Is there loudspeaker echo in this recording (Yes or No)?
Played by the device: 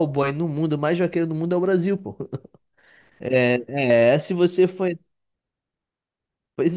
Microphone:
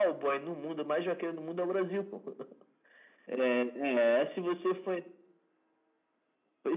Yes